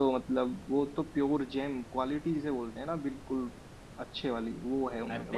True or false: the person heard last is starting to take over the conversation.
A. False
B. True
B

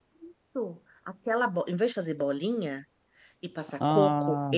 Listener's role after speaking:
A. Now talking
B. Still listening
B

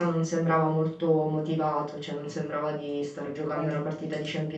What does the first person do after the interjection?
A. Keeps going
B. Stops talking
A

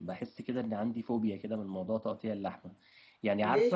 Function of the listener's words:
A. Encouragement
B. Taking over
A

